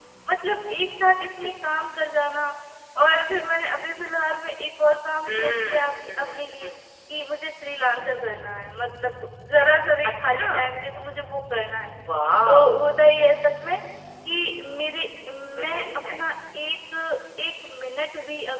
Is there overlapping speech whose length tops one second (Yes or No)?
Yes